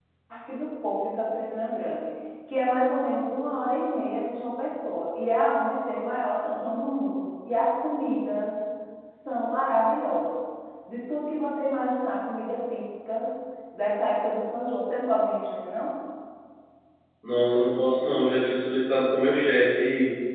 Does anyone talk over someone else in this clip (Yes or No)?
No